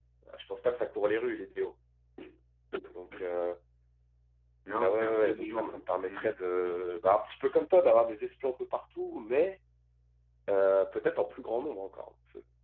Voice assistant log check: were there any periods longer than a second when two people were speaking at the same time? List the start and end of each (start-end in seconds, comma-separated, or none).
4.8-6.3